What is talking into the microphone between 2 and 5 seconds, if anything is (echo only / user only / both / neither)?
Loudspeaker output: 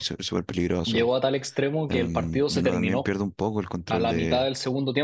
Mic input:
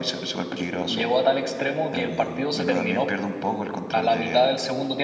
echo only